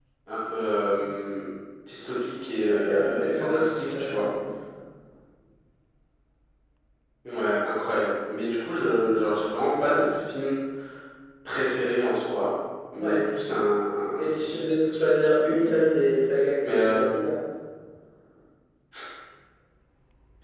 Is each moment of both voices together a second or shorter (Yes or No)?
No